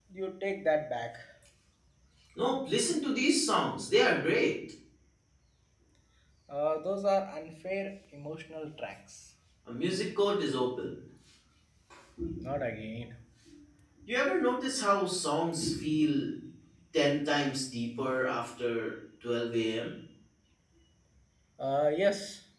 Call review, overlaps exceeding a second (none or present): none